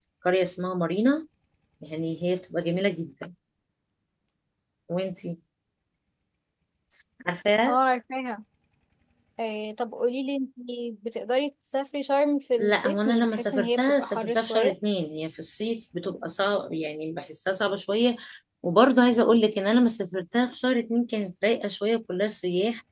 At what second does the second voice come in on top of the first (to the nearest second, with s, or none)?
13 s